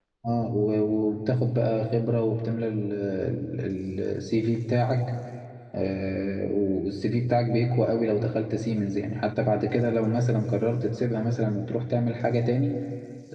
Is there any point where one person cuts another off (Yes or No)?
No